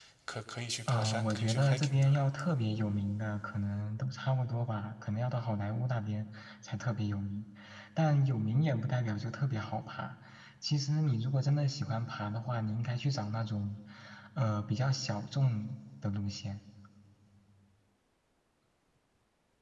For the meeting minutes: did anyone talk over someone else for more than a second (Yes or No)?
Yes